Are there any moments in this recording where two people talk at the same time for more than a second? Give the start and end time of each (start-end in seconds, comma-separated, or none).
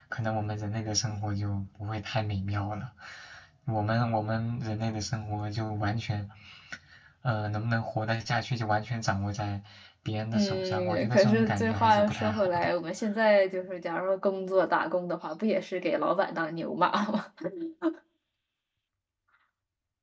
10.3-12.7